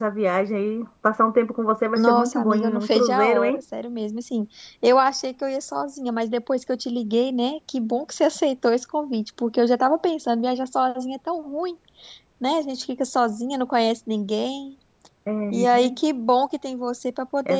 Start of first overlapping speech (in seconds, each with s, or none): 2.0 s